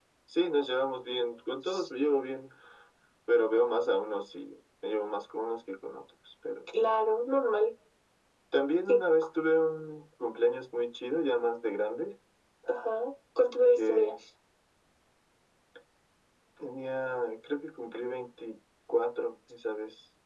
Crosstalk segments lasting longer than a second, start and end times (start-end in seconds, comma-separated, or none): none